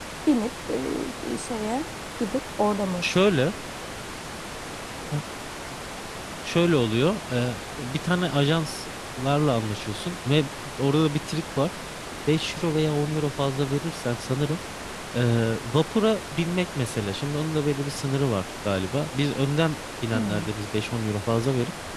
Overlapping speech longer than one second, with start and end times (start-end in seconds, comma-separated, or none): none